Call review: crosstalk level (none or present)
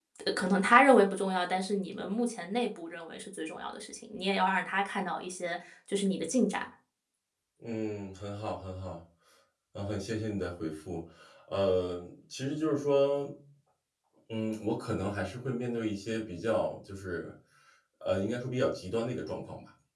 none